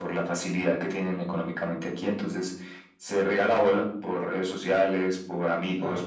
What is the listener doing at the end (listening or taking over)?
listening